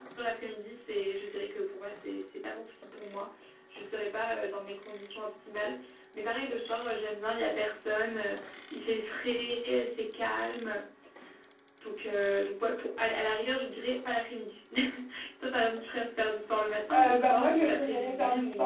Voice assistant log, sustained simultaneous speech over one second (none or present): present